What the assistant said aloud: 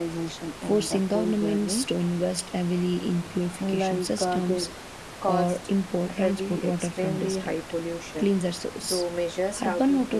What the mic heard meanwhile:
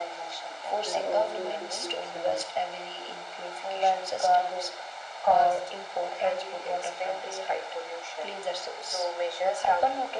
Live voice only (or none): and also to switch uh,